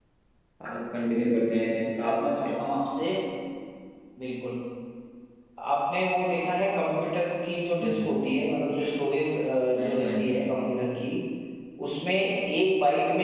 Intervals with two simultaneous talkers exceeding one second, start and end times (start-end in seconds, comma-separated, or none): none